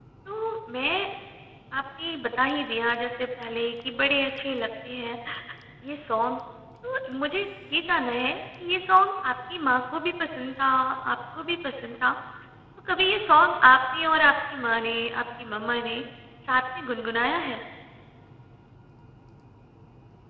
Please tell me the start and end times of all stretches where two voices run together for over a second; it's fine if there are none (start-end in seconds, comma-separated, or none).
none